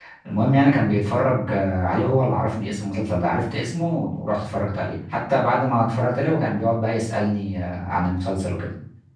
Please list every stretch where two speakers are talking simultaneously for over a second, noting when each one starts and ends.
none

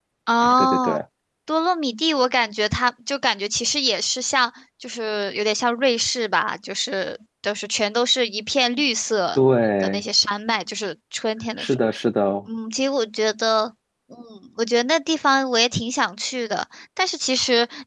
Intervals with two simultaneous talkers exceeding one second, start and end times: none

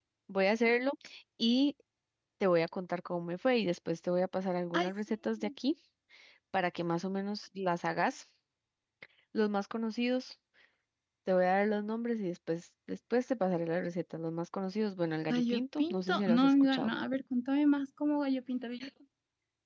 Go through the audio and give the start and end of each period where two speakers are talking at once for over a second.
15.3-16.9

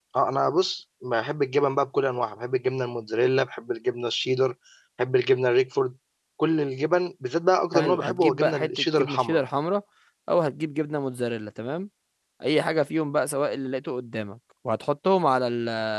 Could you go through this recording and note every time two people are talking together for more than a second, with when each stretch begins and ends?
7.7-9.4

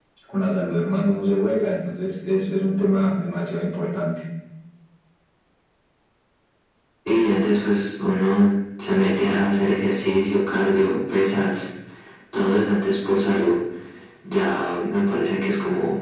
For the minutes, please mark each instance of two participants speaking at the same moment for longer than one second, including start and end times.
none

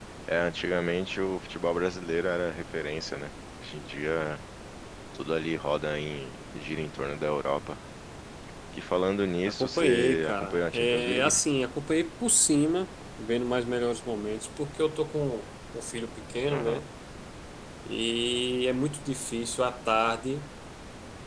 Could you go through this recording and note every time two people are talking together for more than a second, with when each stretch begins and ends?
9.6-11.4

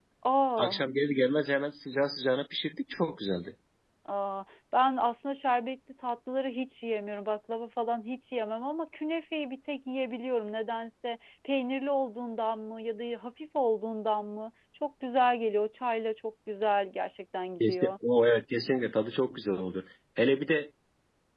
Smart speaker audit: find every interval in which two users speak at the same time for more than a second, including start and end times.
none

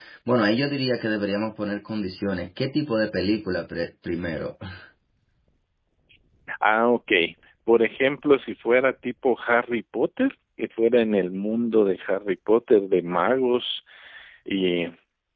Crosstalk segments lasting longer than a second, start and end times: none

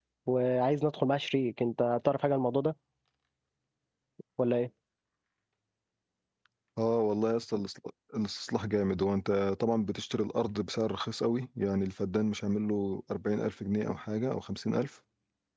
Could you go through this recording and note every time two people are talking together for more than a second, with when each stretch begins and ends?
none

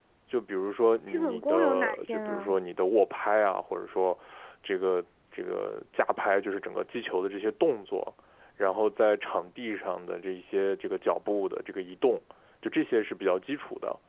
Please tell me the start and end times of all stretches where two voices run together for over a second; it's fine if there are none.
1.1-2.6

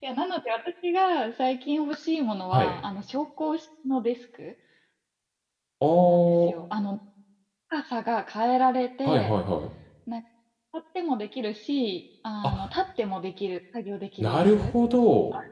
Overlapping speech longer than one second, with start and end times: none

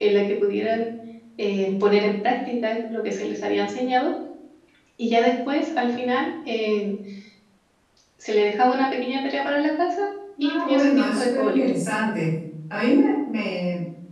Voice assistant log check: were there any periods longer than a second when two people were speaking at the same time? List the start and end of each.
10.4-11.7

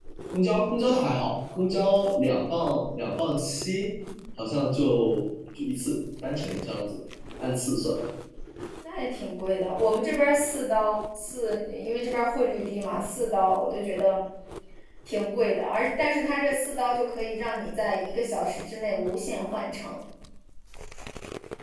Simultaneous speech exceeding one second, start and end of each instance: none

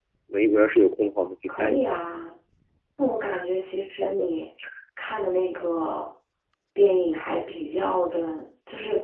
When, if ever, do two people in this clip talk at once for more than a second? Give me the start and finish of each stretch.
none

